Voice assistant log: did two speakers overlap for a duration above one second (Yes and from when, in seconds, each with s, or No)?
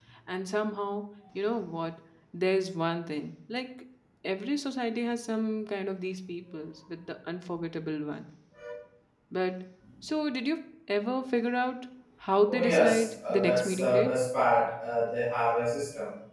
Yes, from 12.5 s